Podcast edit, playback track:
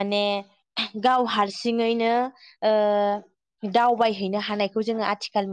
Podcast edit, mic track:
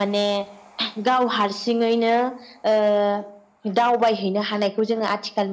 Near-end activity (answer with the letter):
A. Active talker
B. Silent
B